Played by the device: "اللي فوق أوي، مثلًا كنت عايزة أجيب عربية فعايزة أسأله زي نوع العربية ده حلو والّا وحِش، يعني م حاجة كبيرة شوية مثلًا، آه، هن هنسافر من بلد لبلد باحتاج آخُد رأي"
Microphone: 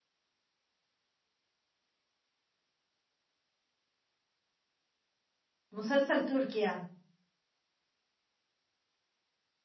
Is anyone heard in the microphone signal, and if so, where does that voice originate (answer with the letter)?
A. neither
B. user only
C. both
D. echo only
B